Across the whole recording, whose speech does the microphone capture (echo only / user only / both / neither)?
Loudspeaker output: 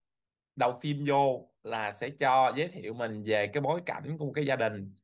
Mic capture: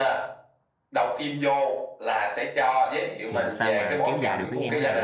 both